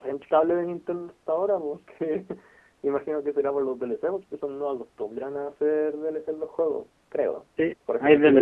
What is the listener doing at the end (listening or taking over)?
taking over